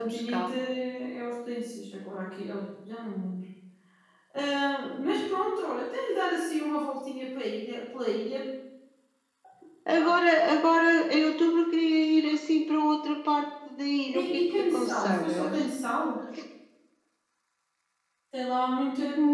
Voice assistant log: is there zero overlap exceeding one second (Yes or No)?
No